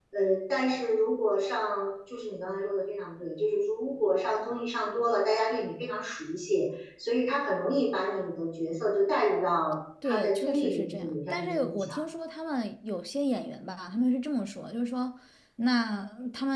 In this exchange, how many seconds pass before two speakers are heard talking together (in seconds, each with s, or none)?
10.0 s